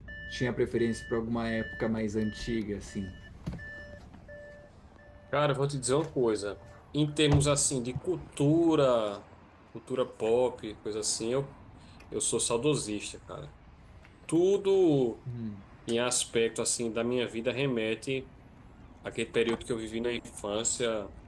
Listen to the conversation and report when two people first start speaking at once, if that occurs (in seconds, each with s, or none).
none